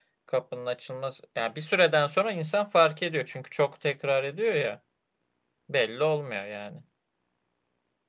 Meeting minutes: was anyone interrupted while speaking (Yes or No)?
No